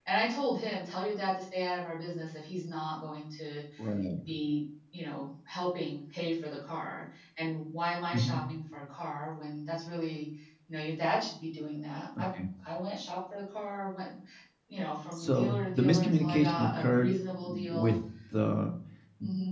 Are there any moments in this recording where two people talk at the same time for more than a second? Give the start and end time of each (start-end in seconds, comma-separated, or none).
15.1-17.9